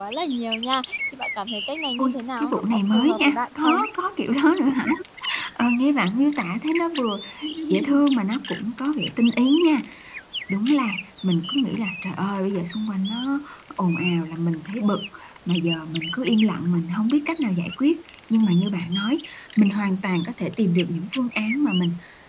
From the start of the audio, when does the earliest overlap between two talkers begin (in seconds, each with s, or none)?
2.0 s